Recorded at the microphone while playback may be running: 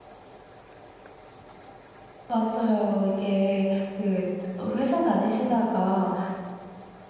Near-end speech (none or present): present